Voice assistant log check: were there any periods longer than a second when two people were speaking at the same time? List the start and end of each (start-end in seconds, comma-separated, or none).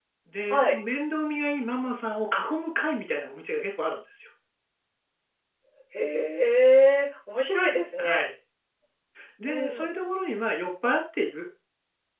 none